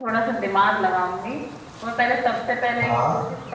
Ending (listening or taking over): listening